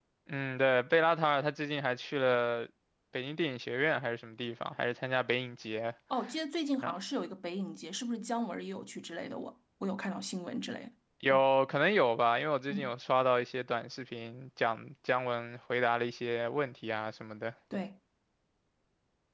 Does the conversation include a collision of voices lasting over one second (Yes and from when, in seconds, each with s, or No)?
No